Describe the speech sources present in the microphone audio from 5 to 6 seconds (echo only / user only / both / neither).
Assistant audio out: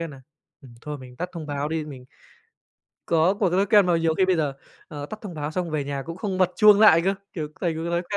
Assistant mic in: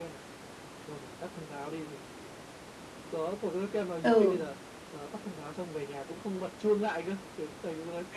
echo only